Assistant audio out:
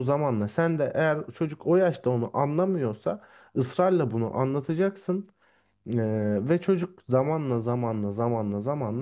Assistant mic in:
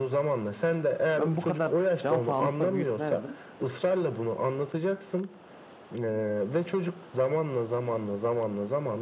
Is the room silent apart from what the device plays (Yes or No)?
No